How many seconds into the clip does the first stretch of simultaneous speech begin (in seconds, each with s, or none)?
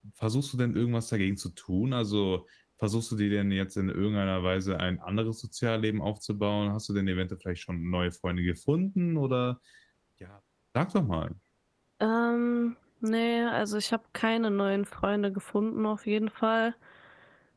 none